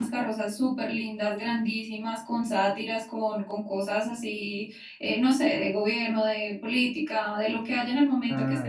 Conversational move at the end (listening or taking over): listening